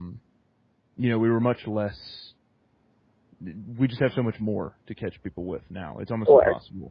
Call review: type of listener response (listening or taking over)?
listening